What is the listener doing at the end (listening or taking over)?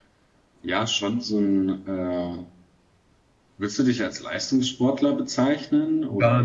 taking over